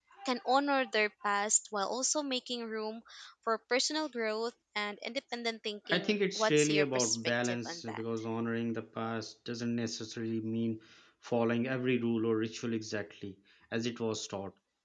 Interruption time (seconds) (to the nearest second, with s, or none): 6 s